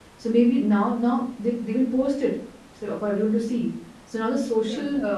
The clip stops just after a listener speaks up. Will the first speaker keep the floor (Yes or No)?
Yes